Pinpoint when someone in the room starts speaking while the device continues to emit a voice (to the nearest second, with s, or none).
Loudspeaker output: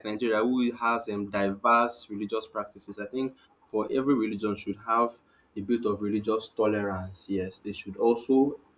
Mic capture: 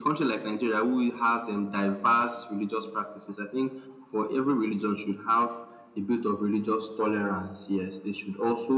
none